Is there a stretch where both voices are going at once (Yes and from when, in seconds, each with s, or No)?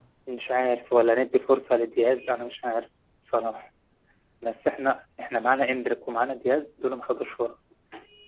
No